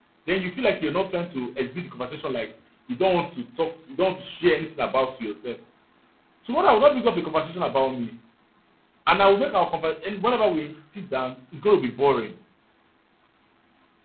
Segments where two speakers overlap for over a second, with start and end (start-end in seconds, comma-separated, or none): none